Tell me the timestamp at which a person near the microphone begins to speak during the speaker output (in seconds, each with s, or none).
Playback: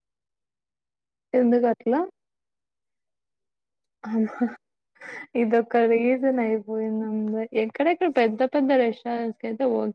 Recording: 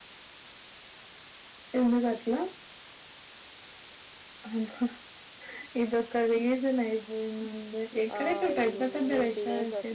8.2 s